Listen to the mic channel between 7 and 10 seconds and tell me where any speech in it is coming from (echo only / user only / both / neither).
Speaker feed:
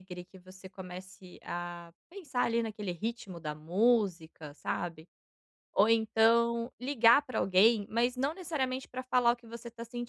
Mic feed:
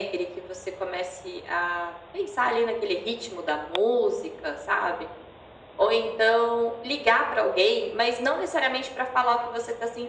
echo only